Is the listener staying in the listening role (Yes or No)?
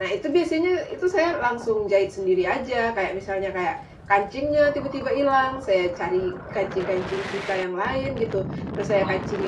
Yes